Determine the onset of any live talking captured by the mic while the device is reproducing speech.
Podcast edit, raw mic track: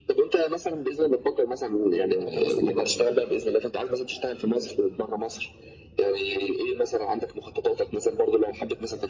2.2 s

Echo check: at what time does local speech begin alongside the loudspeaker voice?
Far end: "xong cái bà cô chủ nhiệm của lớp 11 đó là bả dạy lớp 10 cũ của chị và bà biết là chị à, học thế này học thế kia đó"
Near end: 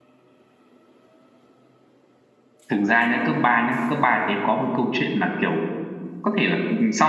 2.7 s

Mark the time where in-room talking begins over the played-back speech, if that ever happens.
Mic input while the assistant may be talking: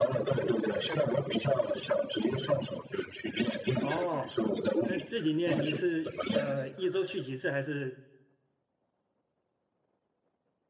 3.8 s

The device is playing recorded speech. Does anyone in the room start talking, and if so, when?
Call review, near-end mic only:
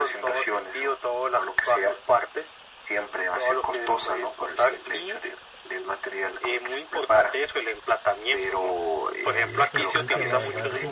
9.2 s

